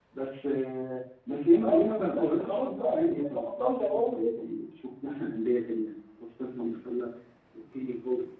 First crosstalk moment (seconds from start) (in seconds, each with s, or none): 1.5 s